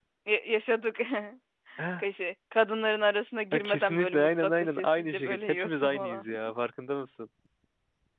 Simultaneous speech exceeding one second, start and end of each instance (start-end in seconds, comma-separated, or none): 3.5-6.2